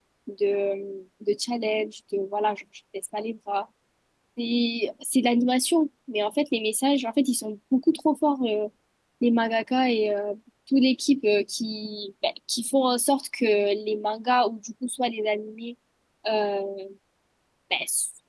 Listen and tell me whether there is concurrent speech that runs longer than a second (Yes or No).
No